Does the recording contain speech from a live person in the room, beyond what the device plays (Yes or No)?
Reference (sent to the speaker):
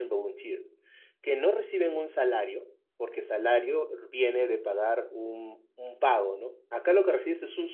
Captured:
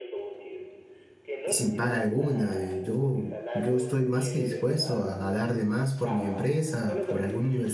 Yes